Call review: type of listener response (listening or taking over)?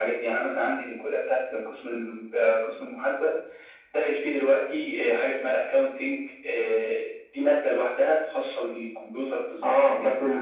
taking over